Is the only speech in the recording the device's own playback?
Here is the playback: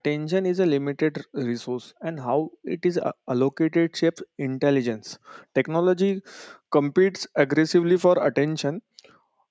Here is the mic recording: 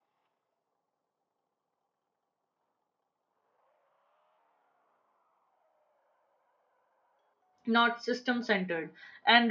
No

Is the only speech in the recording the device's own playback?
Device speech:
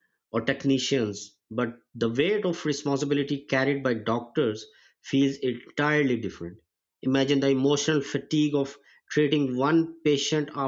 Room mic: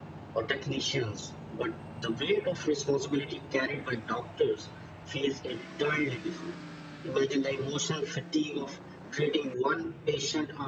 Yes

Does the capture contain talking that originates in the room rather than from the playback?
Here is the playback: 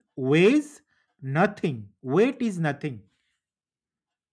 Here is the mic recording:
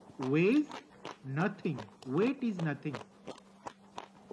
No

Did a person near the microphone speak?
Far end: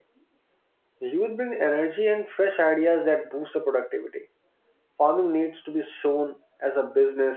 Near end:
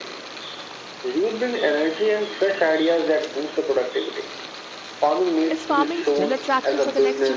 Yes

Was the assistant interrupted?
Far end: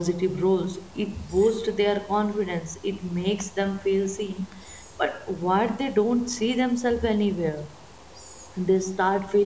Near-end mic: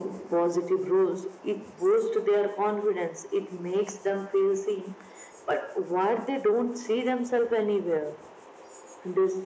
No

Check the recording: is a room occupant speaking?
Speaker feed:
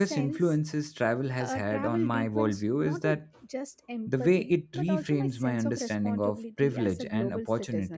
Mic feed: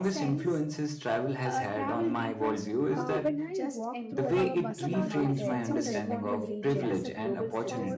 Yes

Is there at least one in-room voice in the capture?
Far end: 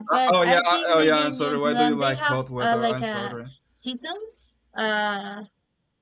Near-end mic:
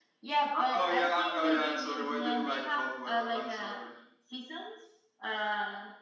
No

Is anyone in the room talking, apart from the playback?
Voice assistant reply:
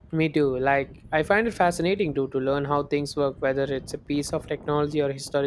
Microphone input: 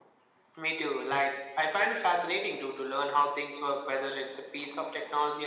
No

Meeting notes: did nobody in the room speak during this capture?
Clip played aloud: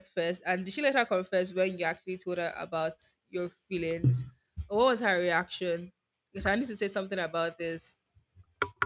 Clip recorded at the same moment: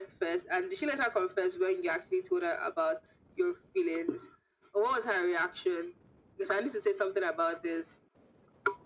Yes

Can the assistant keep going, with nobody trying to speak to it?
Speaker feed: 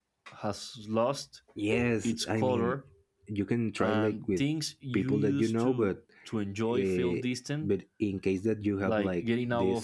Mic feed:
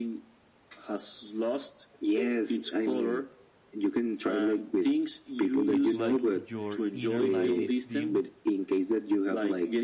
No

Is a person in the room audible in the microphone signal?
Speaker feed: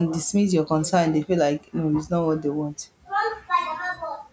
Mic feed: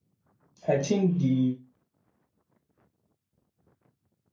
Yes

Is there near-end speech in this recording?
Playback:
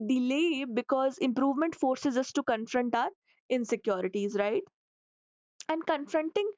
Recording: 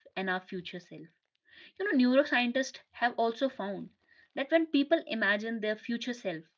Yes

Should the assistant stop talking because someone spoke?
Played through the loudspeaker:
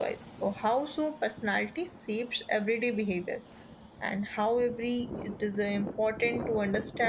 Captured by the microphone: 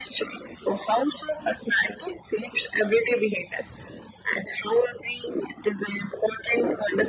No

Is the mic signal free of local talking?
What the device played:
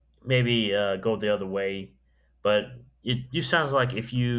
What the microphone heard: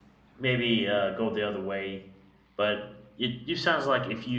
Yes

